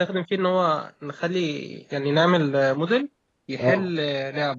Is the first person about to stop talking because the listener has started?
No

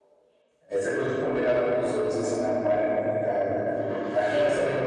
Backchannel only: Yes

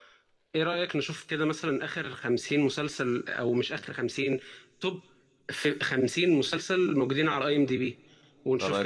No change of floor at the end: Yes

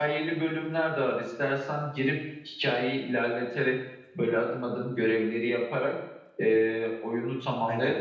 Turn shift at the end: No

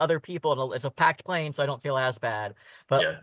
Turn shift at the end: No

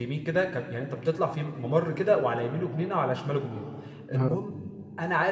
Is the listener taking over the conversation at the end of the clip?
No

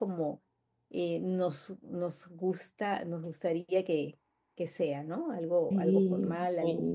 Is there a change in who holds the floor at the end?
Yes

